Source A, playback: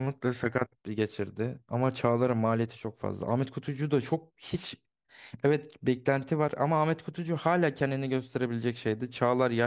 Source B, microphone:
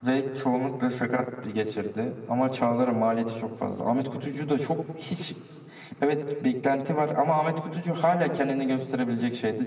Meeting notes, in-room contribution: none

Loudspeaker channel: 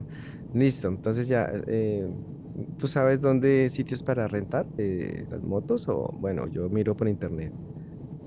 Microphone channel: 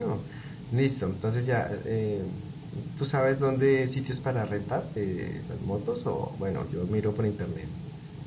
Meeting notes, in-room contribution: none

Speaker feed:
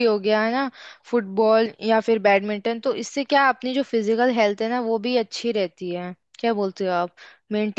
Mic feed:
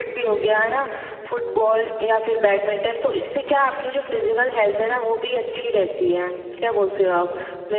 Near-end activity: none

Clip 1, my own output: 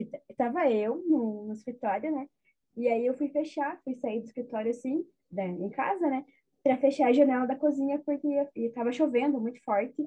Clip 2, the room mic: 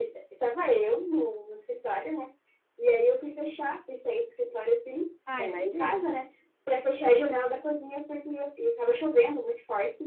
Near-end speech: present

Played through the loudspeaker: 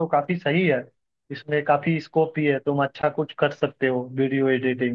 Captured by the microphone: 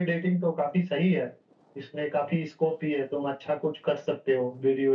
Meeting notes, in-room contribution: none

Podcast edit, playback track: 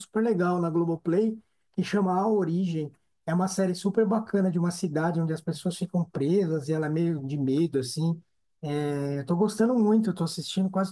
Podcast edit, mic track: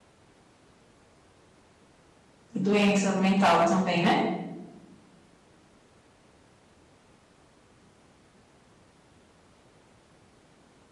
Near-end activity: present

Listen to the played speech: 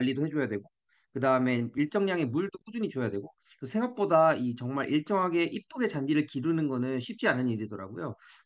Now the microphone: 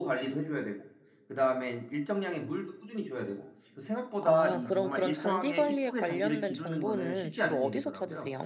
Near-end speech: present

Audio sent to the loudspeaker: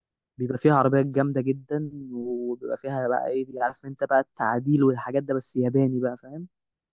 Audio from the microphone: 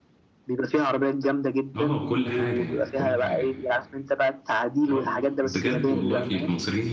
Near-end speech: present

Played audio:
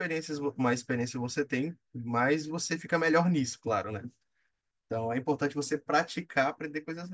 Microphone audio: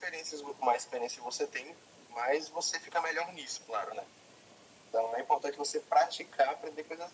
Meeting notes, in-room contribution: none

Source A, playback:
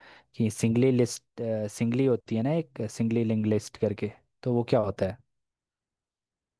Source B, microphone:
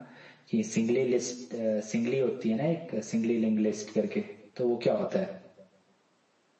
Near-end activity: none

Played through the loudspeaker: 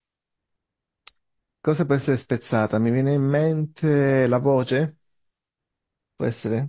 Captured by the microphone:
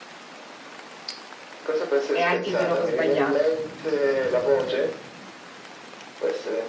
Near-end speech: present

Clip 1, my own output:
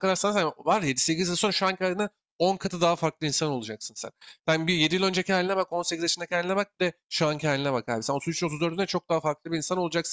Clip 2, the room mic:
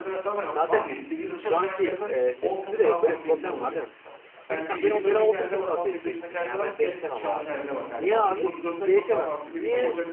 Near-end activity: present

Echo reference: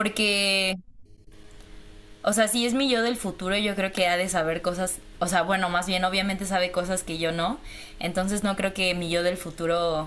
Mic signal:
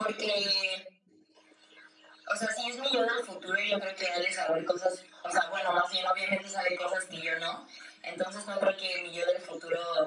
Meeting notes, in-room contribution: none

